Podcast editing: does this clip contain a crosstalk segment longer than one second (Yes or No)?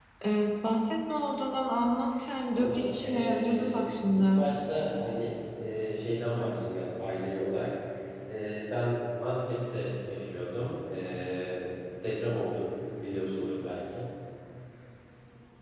Yes